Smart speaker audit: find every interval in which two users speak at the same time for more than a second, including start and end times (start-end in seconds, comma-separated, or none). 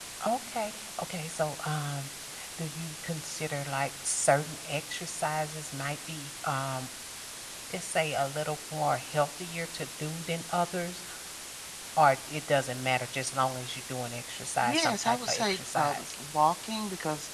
14.7-16.1